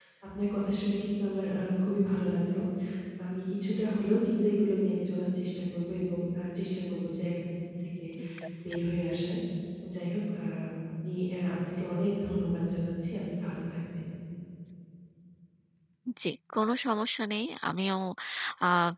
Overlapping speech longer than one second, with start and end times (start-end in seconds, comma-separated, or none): none